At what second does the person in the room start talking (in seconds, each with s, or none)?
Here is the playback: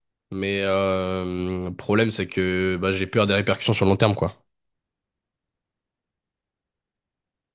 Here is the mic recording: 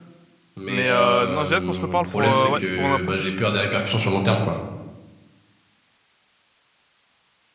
0.7 s